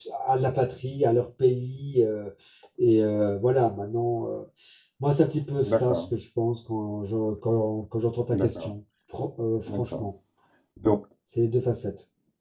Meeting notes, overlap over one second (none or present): none